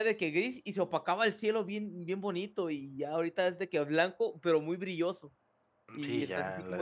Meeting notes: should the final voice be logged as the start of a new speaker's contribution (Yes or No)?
Yes